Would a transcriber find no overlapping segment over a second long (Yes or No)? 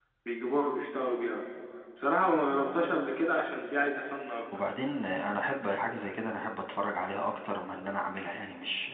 Yes